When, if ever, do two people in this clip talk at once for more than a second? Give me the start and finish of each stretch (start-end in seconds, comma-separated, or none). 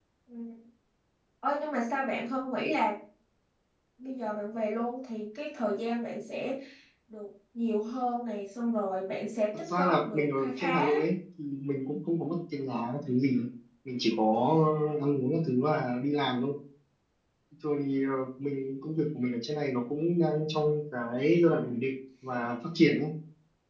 9.7-11.1